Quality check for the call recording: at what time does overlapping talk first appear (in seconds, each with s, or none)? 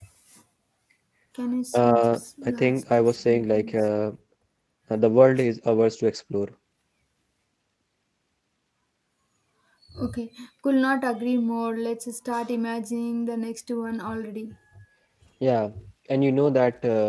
1.7 s